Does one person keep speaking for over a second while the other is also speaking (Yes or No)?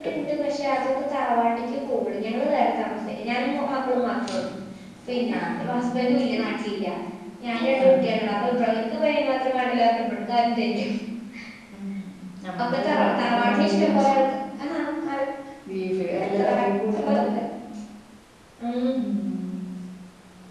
Yes